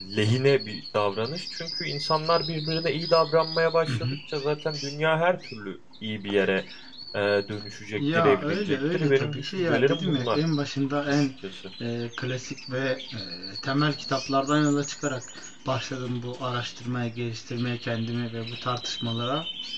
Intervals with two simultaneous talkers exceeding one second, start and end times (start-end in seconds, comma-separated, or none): 8.0-10.4